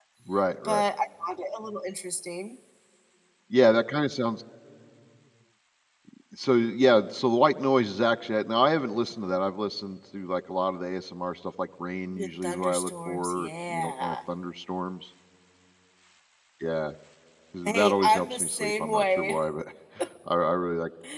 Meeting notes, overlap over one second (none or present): present